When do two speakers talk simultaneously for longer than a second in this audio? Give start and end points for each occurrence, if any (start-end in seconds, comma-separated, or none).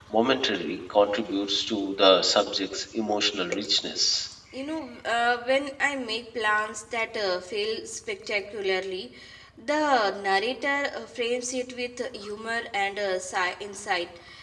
none